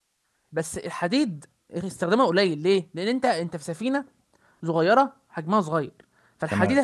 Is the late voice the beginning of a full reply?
No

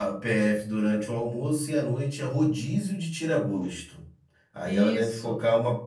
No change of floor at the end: Yes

